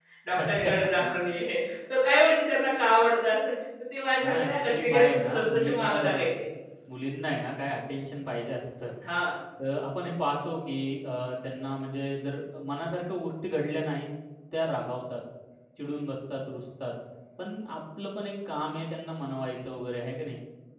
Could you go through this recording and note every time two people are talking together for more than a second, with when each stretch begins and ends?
4.2-6.2

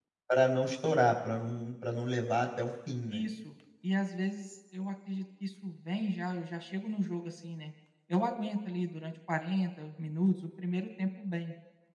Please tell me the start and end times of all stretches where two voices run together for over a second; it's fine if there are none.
none

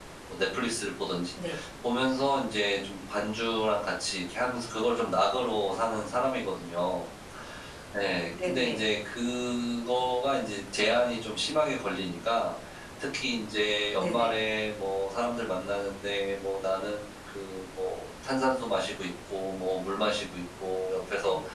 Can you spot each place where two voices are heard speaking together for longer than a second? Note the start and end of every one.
none

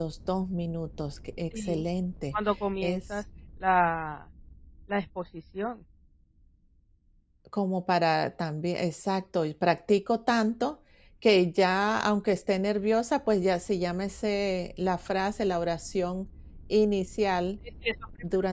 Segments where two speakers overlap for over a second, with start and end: none

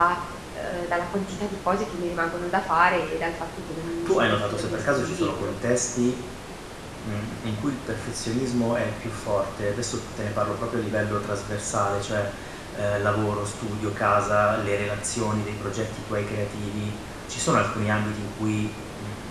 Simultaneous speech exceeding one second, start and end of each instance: 4.1-5.5

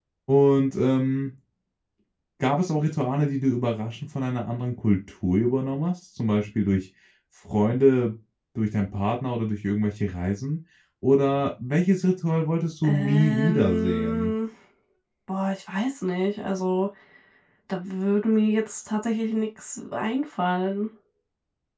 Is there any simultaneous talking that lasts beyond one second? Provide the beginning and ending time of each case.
12.8-14.3

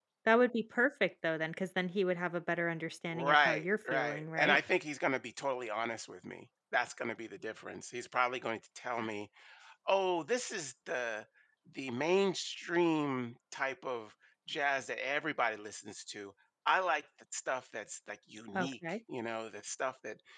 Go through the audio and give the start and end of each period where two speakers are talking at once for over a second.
3.1-4.6

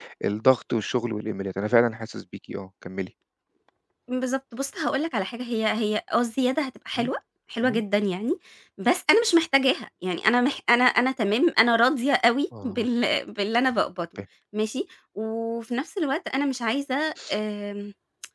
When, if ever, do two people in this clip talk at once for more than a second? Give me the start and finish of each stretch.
none

